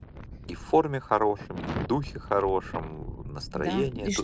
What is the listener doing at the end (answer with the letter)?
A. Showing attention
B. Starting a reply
B